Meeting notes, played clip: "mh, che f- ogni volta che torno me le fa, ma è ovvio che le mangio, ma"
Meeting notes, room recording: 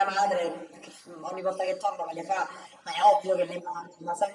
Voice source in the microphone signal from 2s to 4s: echo only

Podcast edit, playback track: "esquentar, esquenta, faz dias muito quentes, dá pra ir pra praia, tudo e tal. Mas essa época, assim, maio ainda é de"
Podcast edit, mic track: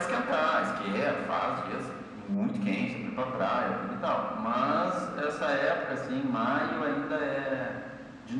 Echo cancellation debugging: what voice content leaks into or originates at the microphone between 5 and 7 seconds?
echo only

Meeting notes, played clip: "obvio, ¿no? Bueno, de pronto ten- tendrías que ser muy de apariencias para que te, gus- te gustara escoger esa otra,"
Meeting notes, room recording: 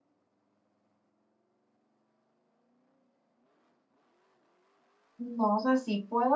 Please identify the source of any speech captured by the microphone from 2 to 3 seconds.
neither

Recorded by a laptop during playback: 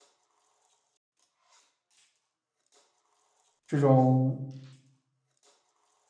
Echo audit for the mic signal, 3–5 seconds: user only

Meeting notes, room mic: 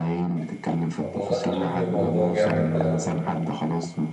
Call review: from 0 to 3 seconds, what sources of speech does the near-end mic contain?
both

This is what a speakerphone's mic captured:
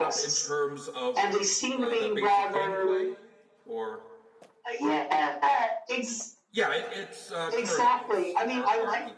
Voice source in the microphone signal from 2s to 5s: both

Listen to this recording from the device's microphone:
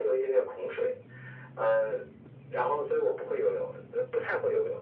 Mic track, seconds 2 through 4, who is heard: echo only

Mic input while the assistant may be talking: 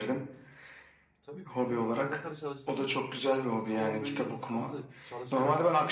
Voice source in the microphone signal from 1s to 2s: both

